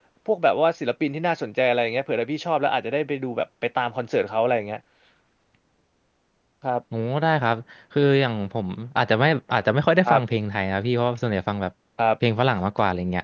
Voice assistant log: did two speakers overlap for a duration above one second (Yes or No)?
No